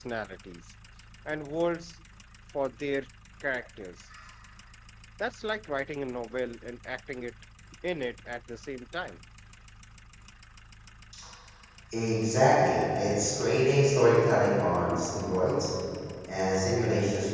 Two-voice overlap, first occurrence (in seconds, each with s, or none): none